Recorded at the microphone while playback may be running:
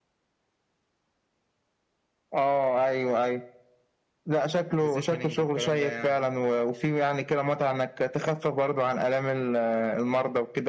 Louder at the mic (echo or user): echo